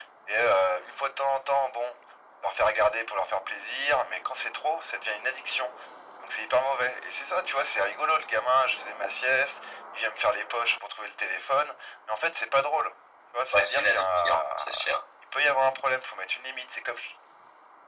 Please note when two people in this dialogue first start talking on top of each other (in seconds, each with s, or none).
13.5 s